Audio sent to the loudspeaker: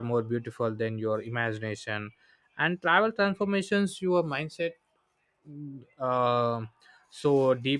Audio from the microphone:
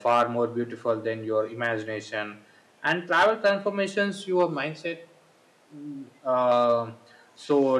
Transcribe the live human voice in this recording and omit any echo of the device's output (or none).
none